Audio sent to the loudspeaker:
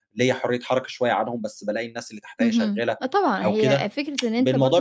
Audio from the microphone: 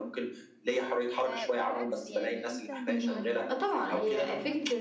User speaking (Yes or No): Yes